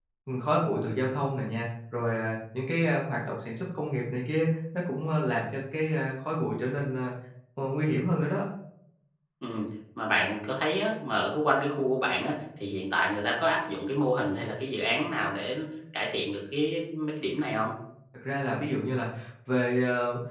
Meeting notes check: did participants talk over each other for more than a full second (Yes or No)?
No